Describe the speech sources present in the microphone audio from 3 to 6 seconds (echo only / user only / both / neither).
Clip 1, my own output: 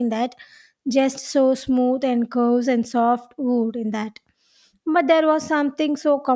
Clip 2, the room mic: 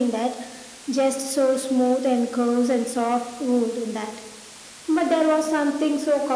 echo only